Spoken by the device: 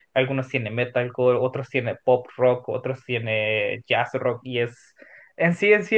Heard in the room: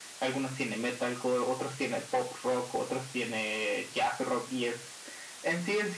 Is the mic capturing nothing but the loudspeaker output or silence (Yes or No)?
Yes